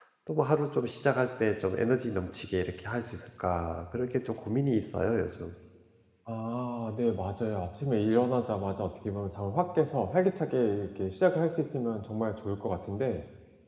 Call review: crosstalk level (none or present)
none